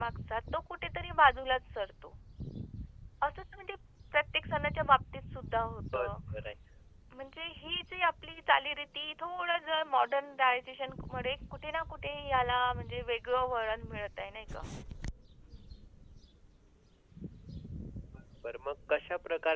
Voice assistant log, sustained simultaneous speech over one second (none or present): none